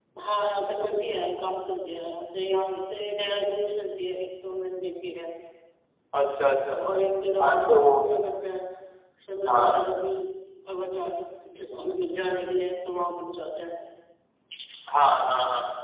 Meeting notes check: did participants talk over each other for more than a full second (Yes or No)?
No